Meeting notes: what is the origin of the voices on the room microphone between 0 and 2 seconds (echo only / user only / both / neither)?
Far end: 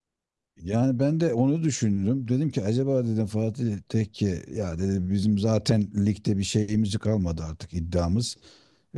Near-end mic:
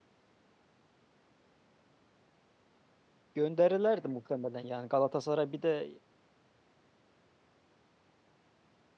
neither